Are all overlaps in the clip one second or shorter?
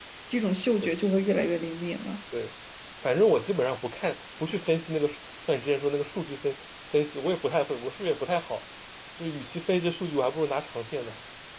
Yes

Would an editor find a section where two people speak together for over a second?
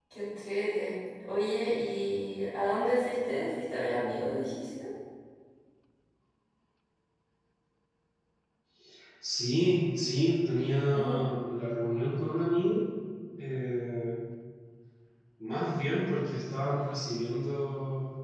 No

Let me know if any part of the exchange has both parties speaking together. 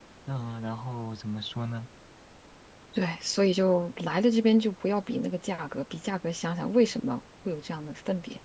No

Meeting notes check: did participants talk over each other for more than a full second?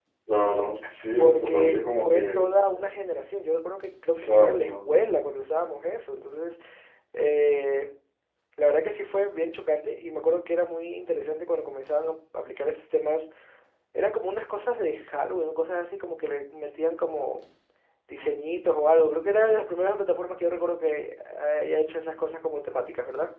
Yes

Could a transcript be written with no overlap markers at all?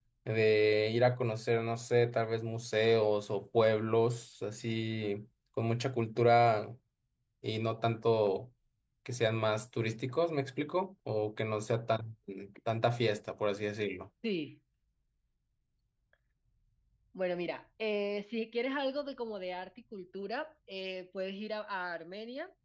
Yes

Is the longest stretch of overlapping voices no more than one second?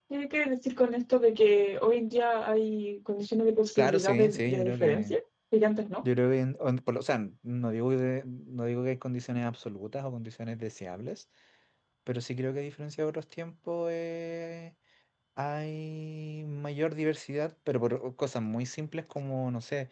No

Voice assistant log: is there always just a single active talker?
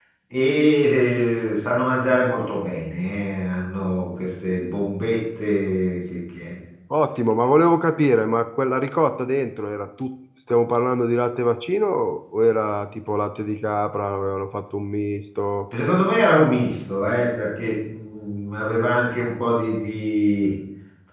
Yes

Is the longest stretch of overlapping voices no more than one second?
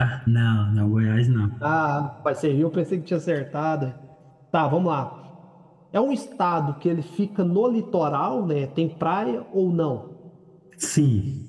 Yes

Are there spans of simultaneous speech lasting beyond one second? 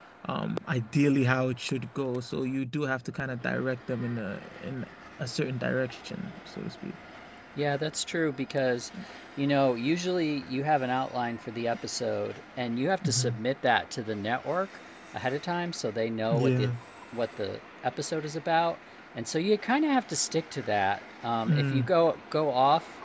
No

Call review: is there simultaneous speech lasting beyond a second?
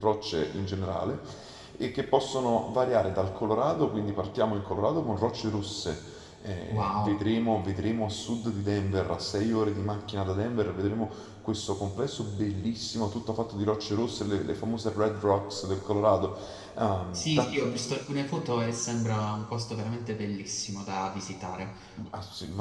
No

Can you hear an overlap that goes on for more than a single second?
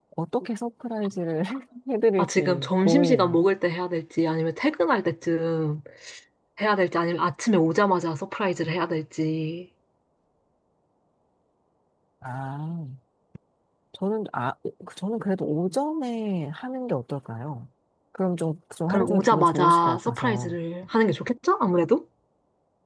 Yes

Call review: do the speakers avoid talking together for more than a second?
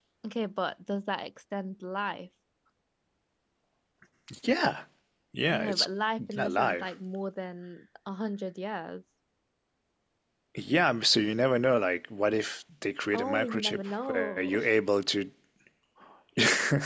No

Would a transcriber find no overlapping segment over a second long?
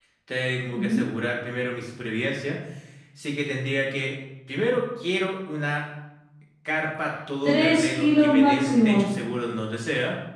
No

